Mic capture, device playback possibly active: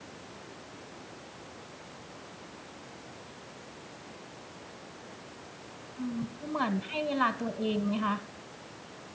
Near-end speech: present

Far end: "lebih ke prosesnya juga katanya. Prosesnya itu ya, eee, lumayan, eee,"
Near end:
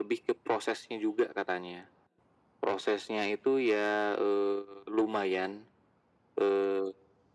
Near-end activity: none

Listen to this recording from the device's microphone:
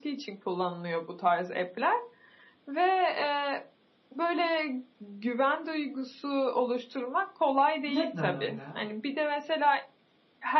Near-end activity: present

